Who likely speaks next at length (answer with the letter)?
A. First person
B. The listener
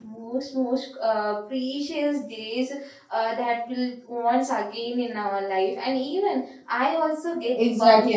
B